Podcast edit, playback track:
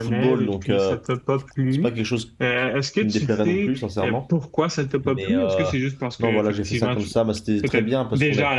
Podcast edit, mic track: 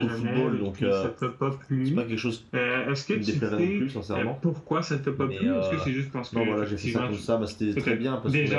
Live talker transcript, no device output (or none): none